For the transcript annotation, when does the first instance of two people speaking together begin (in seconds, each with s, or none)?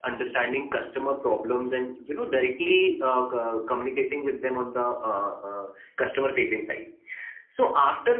none